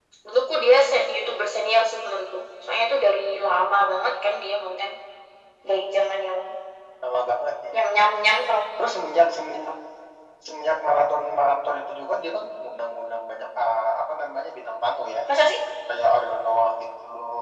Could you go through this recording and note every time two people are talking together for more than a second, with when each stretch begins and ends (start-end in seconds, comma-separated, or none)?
none